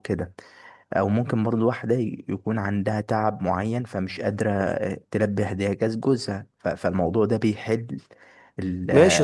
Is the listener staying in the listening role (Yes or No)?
No